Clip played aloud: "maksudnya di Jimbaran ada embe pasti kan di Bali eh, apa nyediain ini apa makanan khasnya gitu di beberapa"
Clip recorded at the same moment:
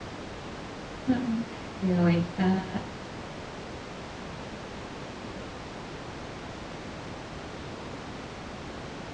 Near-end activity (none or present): present